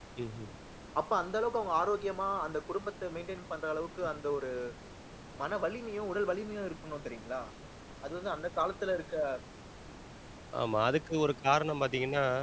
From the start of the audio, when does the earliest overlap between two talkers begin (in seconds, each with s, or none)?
none